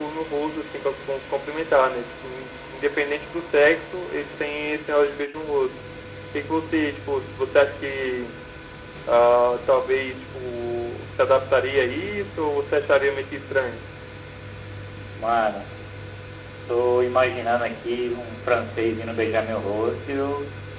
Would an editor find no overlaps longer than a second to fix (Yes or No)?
Yes